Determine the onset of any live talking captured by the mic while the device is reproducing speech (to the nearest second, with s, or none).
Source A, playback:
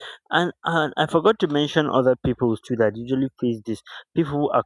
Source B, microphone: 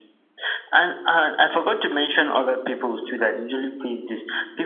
none